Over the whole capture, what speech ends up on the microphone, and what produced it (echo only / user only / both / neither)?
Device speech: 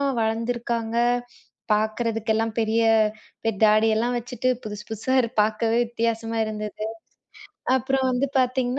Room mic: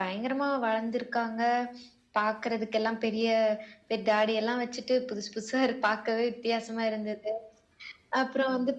echo only